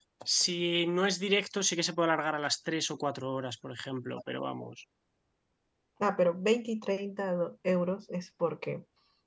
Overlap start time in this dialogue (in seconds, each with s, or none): none